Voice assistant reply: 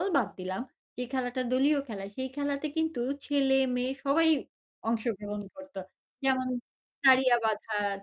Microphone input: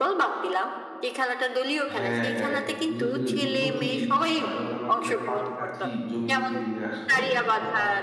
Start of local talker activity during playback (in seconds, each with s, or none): 2.0 s